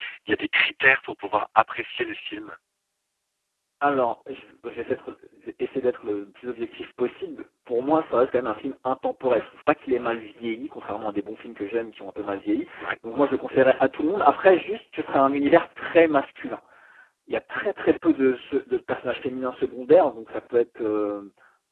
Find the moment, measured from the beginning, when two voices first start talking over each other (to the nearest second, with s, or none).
none